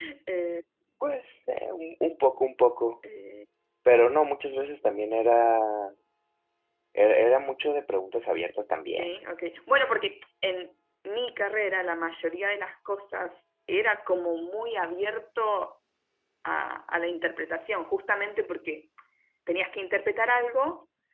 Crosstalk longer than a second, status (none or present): none